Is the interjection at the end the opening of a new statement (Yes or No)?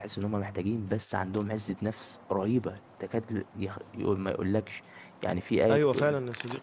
Yes